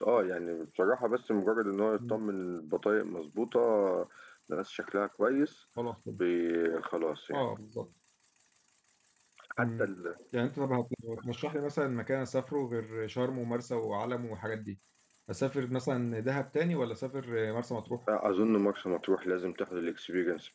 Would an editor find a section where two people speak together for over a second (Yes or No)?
No